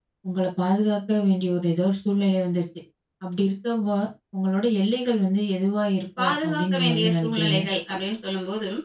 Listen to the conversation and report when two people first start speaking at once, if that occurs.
6.2 s

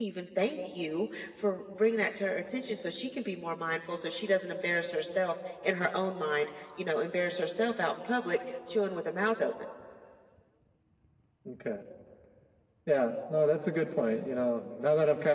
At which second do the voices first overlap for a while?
none

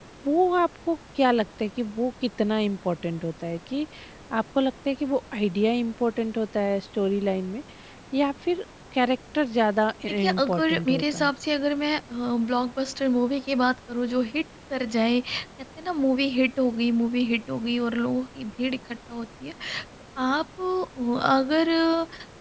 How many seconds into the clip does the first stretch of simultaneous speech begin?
10.1 s

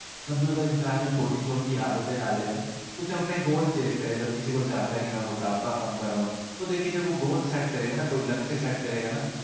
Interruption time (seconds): none

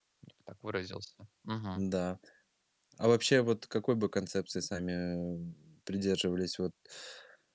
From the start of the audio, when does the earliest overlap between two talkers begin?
none

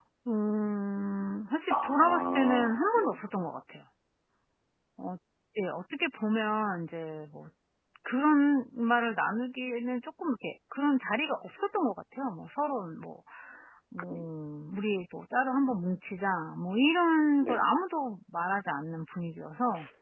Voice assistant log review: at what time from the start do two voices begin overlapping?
1.7 s

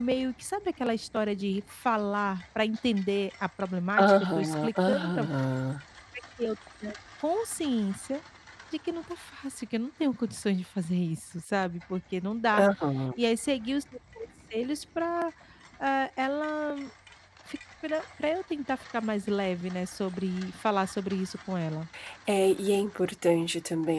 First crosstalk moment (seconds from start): 4.0 s

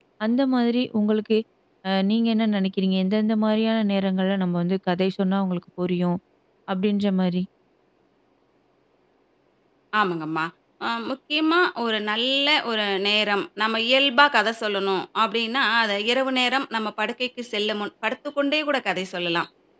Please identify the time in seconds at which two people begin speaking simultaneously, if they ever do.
none

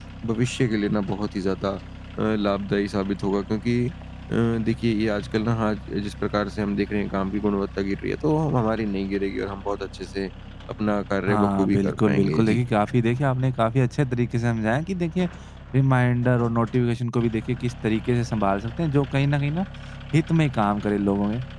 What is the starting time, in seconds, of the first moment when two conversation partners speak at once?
11.3 s

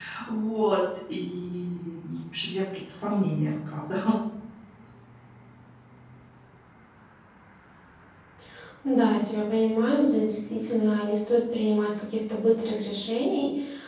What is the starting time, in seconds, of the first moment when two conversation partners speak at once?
none

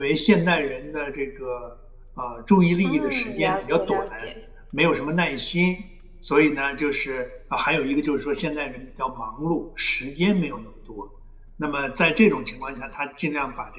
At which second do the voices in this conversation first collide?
2.8 s

